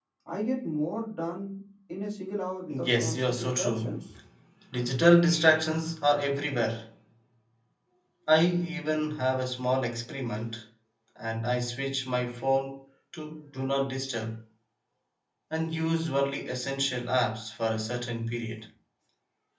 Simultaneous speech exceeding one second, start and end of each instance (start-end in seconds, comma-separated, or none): 2.7-3.9